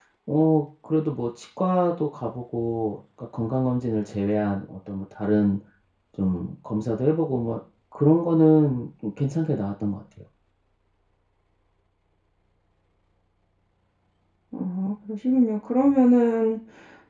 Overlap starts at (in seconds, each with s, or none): none